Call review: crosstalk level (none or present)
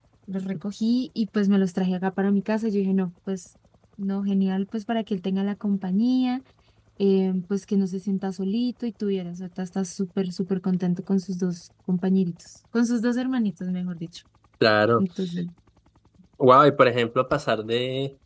none